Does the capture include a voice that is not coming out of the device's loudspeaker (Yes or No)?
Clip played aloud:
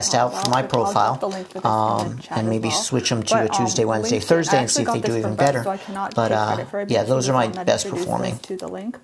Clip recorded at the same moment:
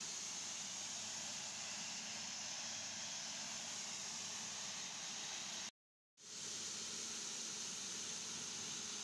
No